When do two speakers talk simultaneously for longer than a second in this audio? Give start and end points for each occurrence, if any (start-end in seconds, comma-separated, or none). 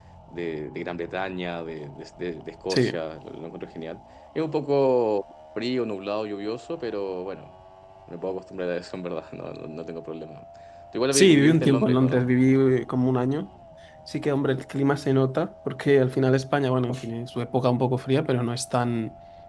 11.1-12.3